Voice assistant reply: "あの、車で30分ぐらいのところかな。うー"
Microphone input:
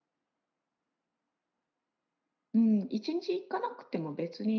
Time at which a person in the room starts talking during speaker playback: 2.5 s

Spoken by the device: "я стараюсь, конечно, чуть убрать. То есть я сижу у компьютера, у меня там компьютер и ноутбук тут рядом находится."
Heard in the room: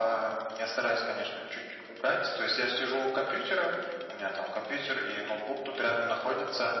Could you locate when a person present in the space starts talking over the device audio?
none

